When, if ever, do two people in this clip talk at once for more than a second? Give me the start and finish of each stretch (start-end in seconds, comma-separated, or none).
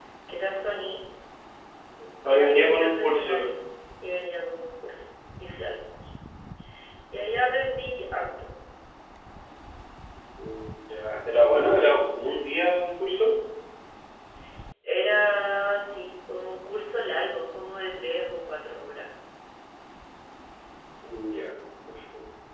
2.3-3.5